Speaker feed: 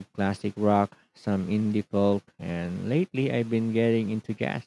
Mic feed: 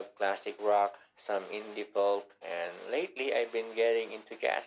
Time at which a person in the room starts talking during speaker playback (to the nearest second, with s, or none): none